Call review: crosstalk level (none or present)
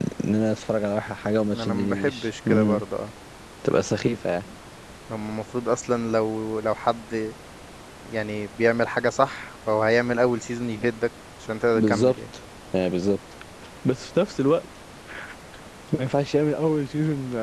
present